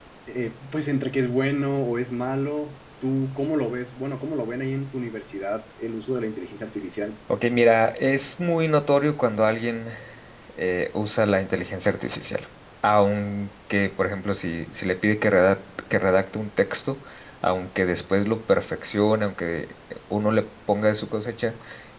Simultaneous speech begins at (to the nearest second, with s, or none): none